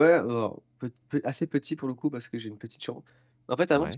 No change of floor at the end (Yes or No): Yes